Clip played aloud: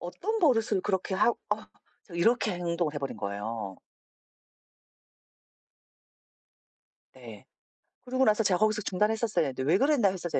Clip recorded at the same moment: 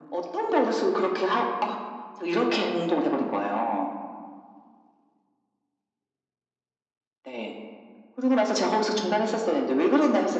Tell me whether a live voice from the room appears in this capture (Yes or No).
No